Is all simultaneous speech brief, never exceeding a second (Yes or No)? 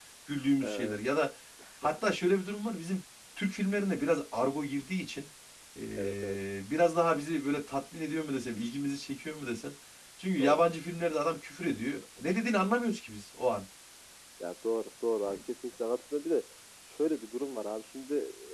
Yes